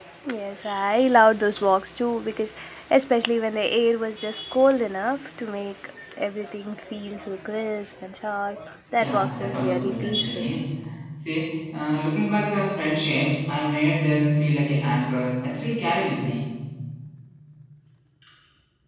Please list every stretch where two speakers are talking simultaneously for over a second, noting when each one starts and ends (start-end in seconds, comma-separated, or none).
9.0-10.4